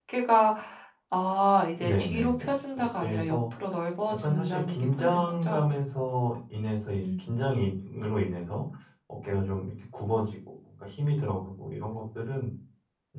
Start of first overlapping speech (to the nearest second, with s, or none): 2 s